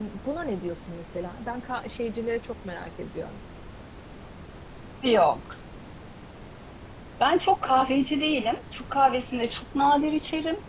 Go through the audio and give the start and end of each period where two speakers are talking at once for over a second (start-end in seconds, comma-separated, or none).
none